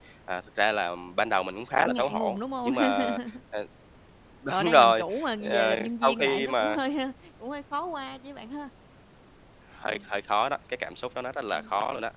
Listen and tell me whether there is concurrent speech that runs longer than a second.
Yes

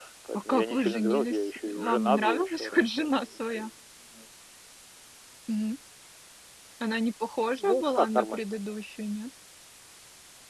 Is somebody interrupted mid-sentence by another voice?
Yes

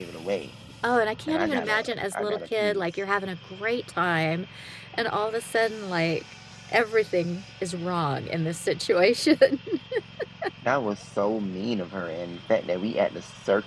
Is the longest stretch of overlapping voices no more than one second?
No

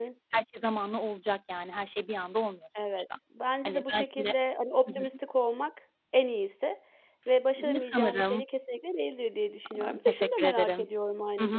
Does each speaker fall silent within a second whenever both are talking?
No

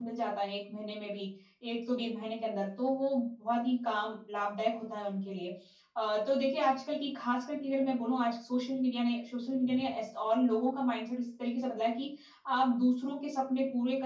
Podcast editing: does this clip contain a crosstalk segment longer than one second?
No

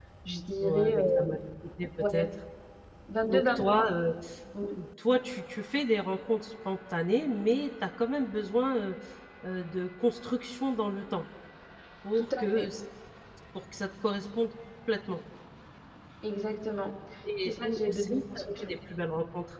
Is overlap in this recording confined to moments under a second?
No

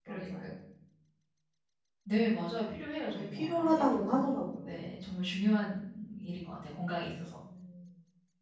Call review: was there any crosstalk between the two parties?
Yes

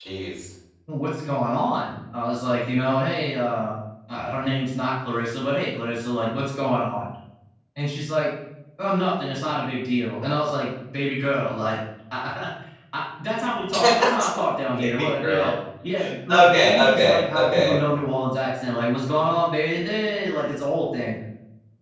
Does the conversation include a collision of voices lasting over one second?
Yes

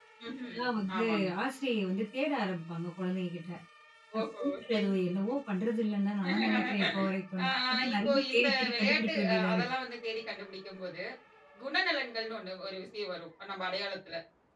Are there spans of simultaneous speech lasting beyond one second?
Yes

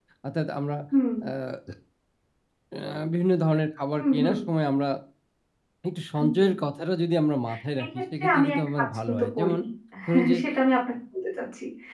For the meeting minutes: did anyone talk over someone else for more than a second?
Yes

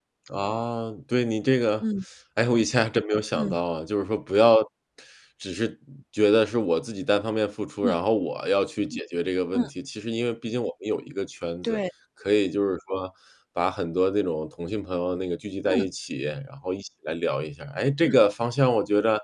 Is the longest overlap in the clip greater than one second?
No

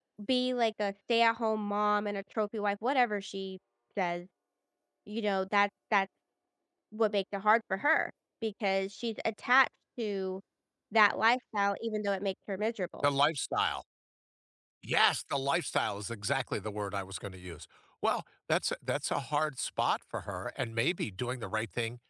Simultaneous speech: No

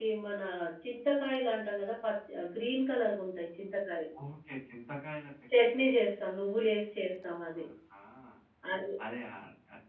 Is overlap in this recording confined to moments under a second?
Yes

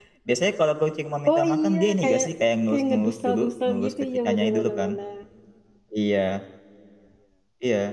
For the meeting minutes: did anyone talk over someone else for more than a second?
Yes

